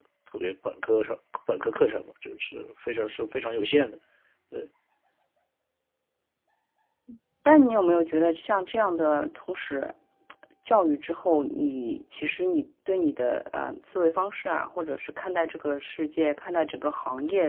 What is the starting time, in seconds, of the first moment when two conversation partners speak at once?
none

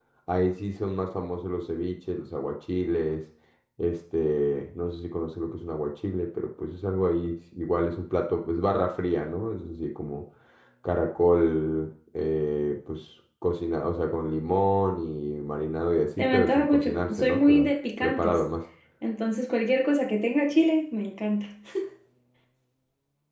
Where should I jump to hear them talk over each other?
16.2 s

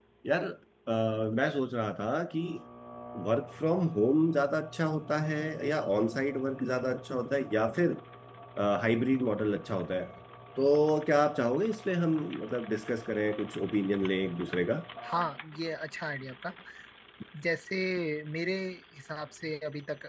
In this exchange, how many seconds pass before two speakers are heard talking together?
none

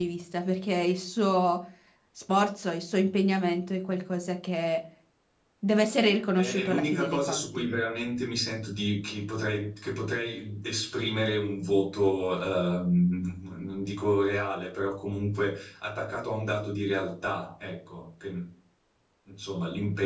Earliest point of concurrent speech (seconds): 6.4 s

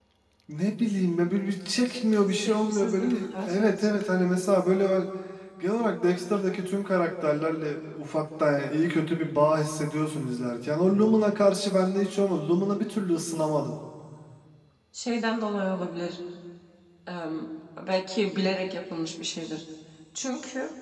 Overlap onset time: 2.5 s

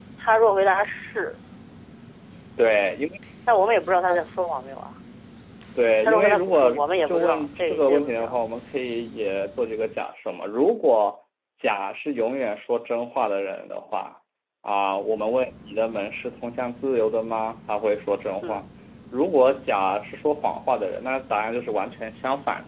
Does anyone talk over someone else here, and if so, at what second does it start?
6.0 s

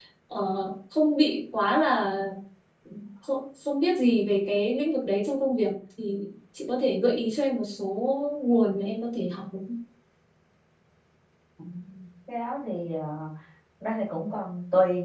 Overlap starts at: none

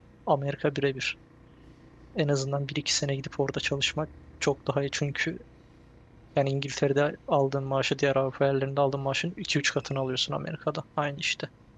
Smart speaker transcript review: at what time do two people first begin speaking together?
none

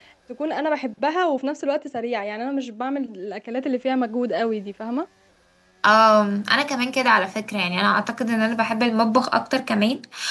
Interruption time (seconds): none

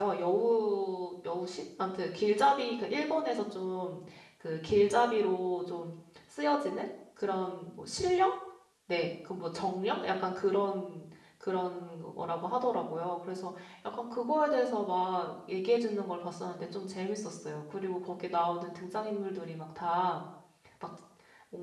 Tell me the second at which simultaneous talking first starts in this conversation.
none

